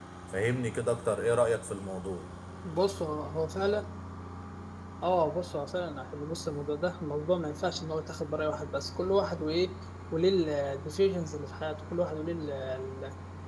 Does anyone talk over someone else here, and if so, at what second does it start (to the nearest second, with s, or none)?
none